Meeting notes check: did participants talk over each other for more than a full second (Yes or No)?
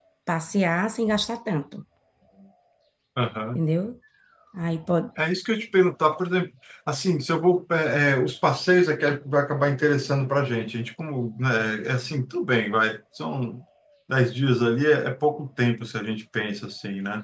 No